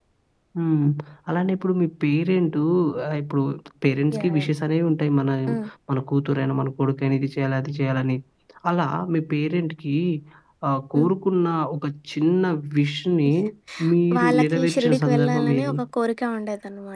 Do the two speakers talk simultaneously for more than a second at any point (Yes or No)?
Yes